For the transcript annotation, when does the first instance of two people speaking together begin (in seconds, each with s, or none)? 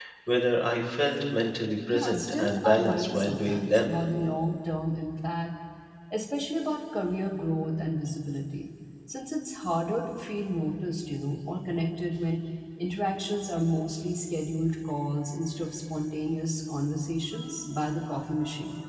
1.9 s